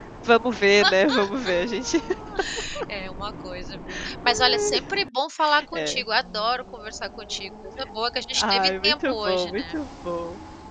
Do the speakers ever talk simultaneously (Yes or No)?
Yes